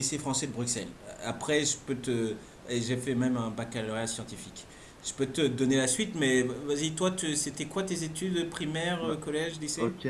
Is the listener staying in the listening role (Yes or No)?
No